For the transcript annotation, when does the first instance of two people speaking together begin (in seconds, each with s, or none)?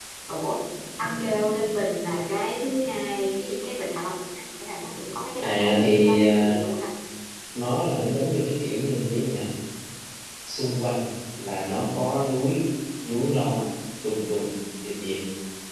5.4 s